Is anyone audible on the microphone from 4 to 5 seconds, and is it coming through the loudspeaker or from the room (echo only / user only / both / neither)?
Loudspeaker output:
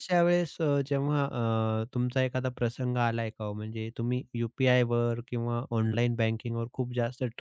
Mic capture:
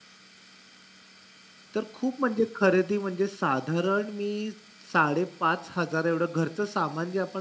user only